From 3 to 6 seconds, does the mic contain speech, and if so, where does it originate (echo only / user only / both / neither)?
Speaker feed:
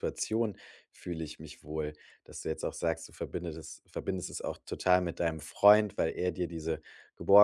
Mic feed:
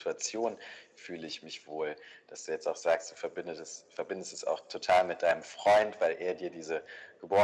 echo only